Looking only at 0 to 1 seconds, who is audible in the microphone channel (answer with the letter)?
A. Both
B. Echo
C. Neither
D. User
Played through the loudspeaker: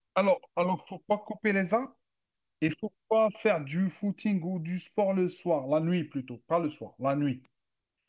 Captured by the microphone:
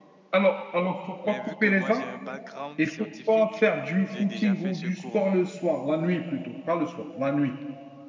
B